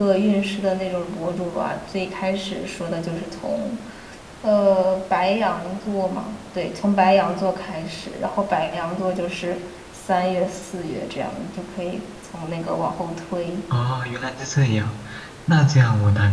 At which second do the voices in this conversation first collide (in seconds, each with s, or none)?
none